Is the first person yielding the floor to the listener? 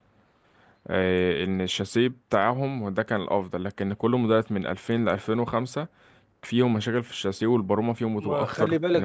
Yes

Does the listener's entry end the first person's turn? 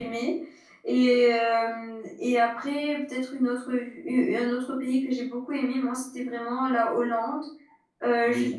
No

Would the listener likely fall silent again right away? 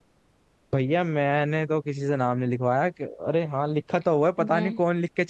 Yes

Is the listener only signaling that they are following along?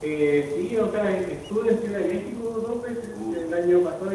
Yes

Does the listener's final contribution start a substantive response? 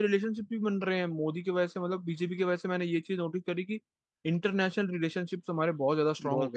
Yes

